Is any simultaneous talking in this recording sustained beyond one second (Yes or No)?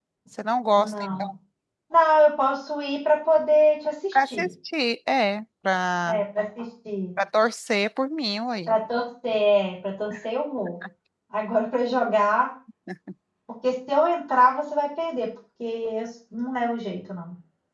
No